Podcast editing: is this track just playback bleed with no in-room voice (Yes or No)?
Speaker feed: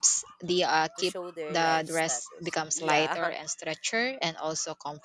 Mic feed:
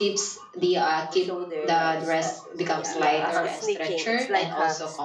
No